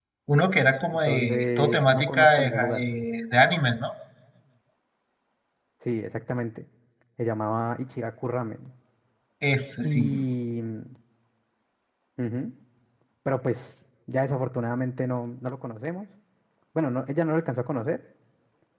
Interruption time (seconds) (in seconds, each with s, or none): 1.1 s